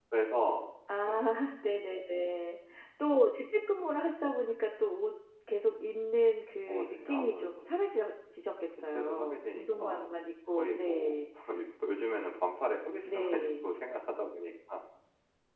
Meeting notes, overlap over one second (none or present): present